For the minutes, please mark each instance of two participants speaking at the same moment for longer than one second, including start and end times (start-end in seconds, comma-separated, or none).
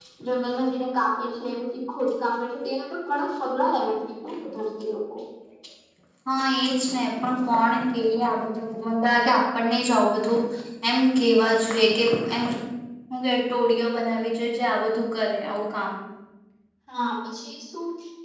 none